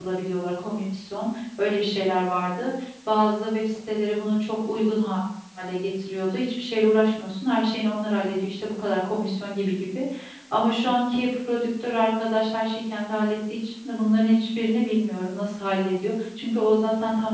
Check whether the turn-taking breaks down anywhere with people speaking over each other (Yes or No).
No